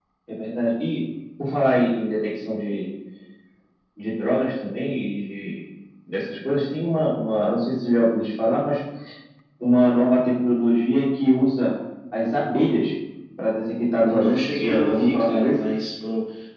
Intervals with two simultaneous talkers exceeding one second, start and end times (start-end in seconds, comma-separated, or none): 14.1-15.6